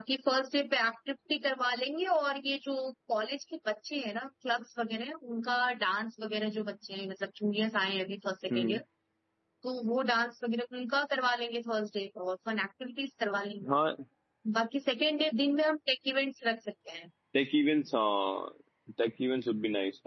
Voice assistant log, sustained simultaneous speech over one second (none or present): none